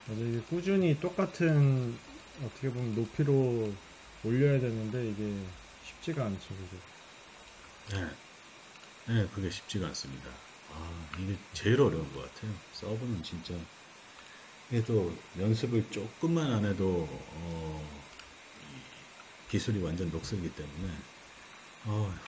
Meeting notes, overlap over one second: none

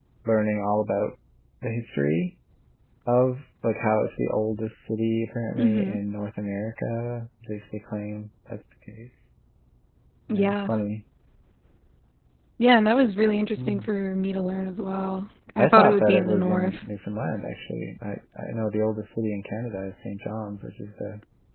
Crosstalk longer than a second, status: present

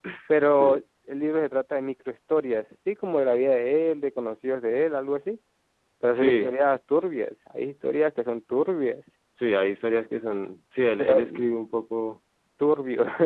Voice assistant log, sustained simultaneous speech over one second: none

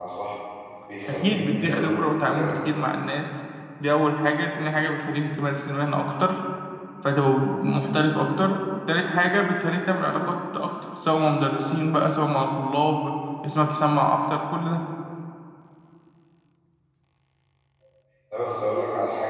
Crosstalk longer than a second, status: present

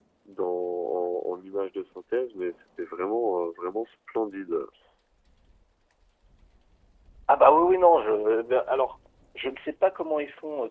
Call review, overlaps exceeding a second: none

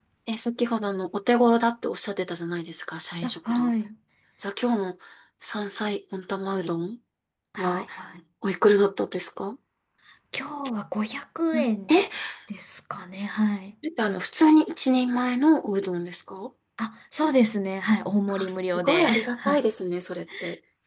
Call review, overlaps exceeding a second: present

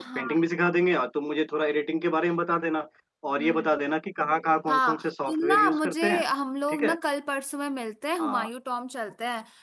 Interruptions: present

